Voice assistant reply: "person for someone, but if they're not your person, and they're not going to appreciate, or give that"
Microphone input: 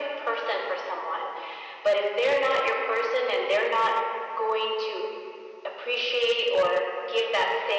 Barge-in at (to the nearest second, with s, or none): none